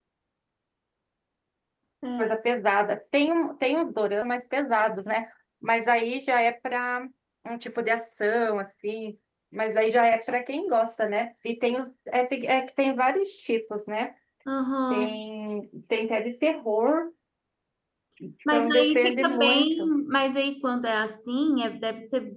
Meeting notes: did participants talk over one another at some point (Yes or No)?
Yes